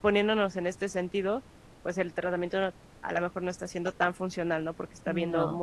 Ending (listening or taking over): listening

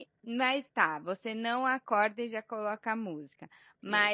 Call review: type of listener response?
listening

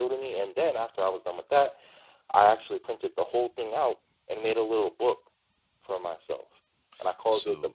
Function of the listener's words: taking over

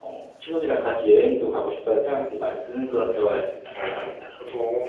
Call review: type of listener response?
taking over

